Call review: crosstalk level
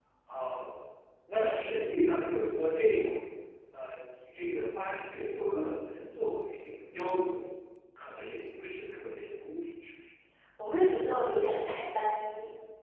none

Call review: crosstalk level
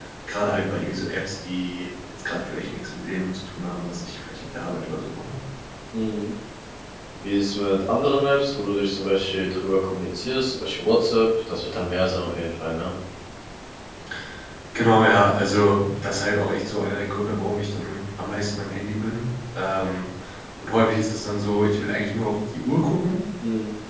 none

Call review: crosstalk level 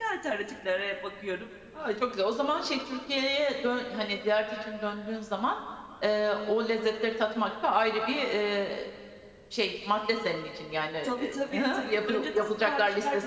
present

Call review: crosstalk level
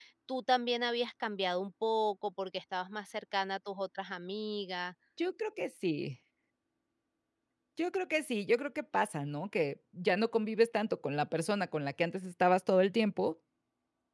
none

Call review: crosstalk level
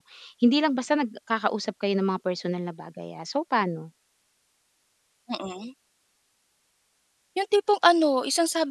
none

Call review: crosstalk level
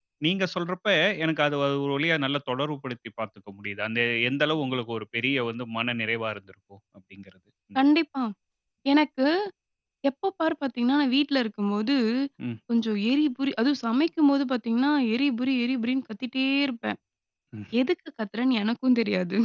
none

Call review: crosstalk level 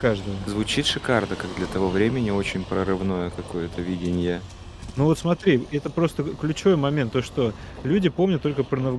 none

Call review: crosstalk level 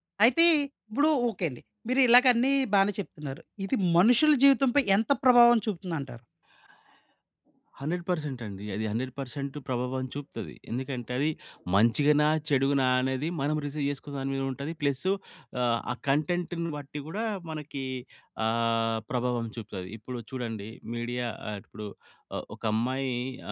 none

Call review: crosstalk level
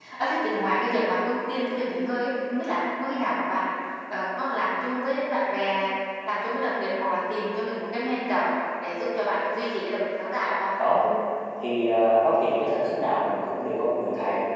none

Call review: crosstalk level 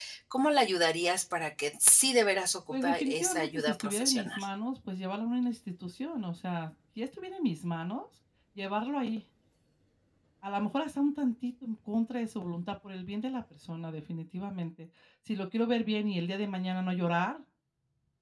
present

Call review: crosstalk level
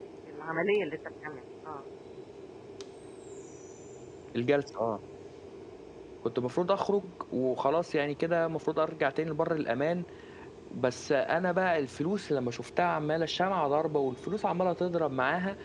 none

